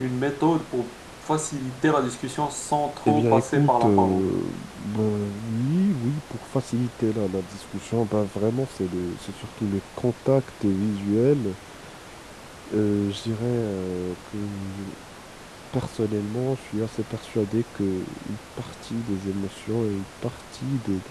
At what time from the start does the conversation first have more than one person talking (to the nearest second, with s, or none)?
3 s